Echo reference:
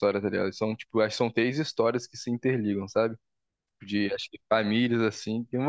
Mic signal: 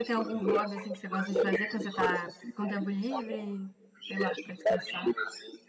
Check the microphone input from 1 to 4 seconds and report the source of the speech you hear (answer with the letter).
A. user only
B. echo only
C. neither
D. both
D